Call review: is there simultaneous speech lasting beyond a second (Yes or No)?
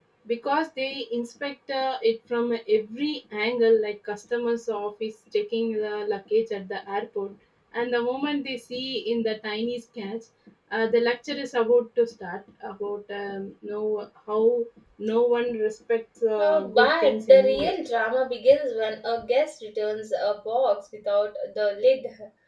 Yes